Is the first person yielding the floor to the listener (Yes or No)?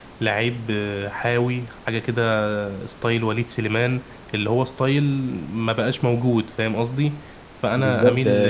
Yes